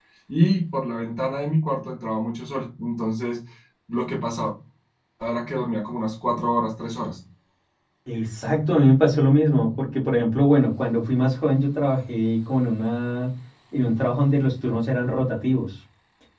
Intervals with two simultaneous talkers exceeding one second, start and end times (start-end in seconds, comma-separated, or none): none